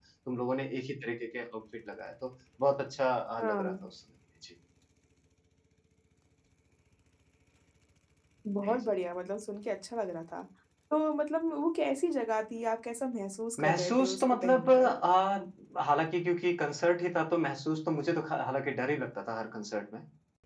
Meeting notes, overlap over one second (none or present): present